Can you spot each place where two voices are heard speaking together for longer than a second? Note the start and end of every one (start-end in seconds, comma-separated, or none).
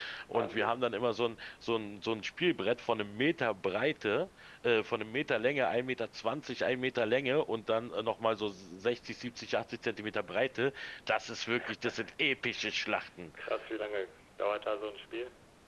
none